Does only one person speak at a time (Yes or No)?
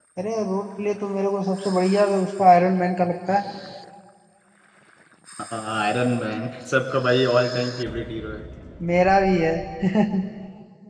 Yes